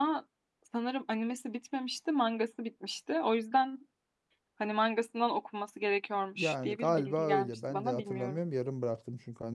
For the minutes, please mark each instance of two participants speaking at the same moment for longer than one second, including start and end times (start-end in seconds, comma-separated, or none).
6.4-8.4